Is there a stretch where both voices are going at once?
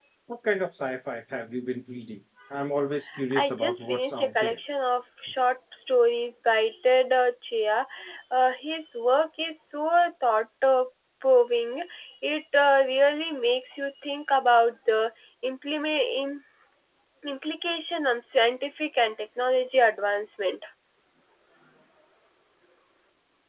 Yes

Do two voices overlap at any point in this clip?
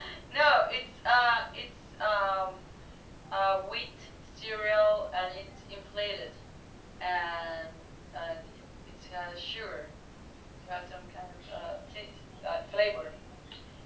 No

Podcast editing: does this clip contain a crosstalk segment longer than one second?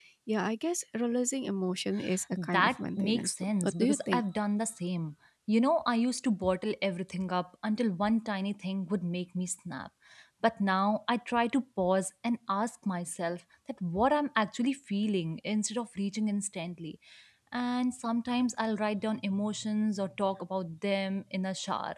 Yes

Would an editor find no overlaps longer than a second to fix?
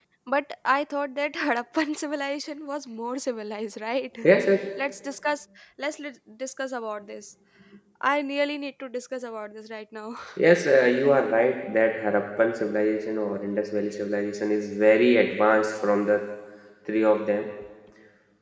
Yes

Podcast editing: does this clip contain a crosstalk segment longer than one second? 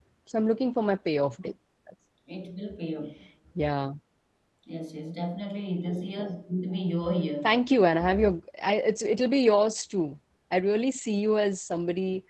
No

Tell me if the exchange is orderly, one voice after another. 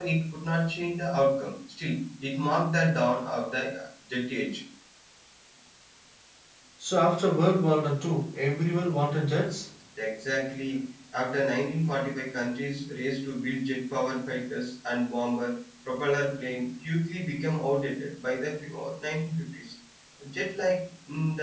Yes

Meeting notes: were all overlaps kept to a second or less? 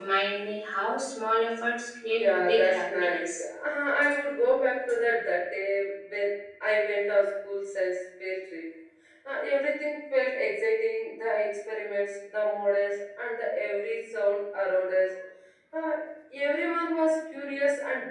No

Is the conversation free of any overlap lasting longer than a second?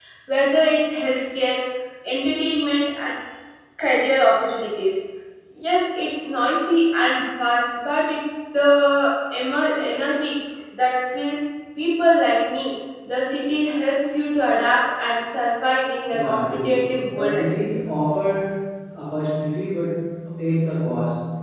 No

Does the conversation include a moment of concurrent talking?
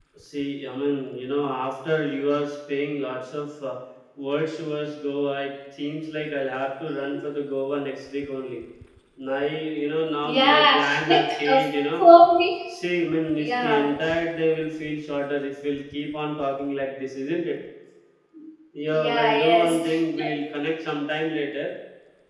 Yes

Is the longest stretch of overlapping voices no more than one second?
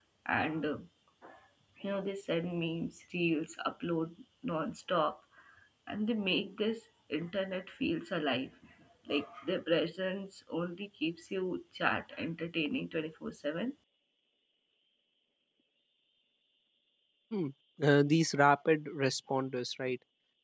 Yes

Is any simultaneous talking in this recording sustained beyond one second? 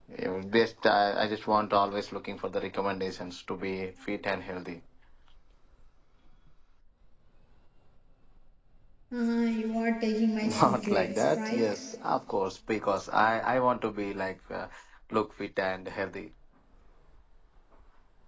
Yes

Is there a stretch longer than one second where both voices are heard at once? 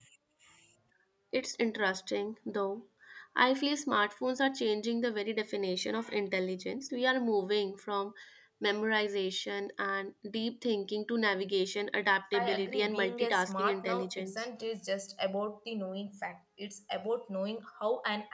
Yes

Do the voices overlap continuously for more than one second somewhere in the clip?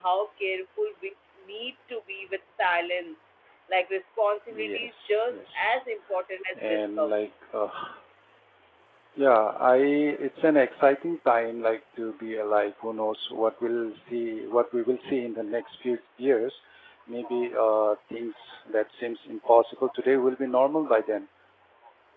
Yes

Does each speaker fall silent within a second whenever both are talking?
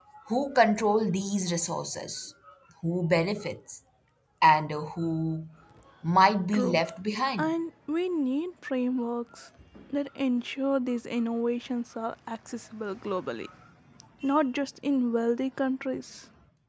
Yes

